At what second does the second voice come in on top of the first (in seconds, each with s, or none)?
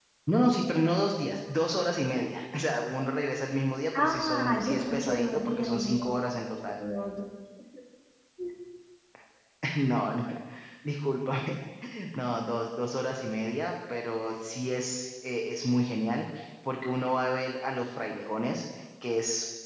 3.9 s